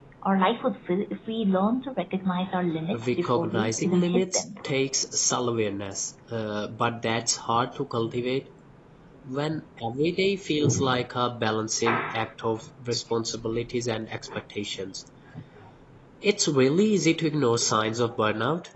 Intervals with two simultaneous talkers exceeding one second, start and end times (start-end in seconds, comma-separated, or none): 2.9-4.4